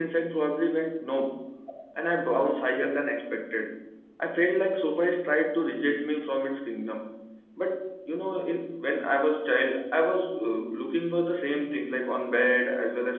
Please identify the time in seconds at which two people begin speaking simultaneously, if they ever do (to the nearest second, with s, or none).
none